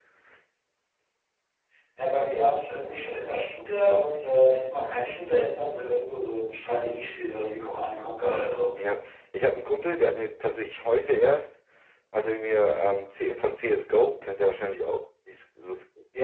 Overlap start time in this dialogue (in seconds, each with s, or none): none